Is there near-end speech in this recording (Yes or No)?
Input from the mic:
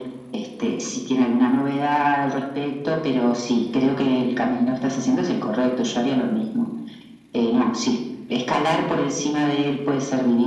No